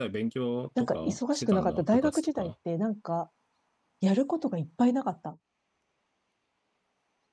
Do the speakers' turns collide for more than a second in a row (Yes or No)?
Yes